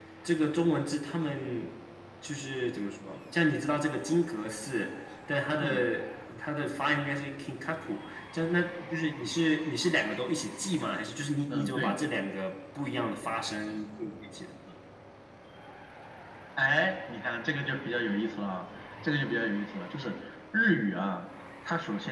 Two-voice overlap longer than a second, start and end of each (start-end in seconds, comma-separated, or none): none